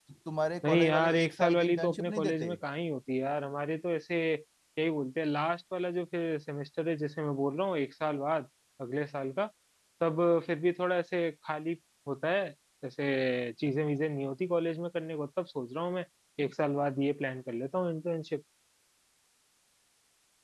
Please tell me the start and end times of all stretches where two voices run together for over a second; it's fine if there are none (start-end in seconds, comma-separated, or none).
0.7-2.5